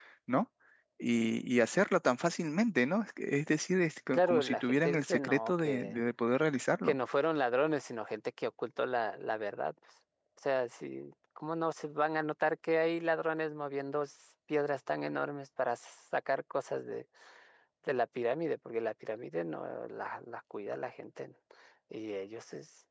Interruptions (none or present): present